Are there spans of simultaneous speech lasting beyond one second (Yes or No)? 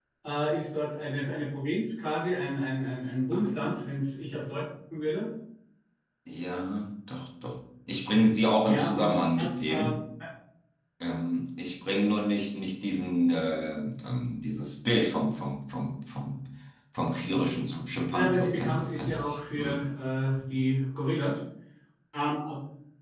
Yes